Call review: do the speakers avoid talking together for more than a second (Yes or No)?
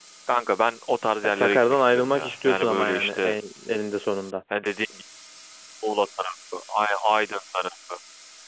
No